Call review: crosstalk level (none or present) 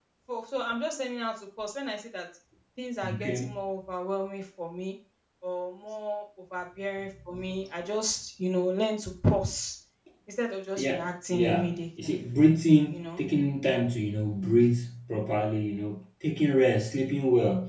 present